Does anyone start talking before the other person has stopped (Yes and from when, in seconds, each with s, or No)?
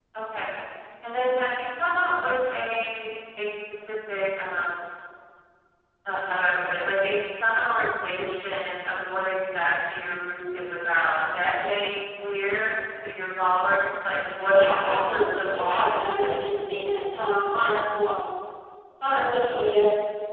Yes, from 14.5 s